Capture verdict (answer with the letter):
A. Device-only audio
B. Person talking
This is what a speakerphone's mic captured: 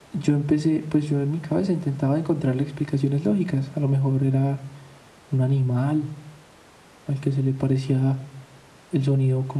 B